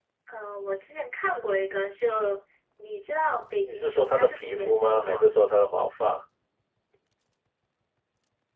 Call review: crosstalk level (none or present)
present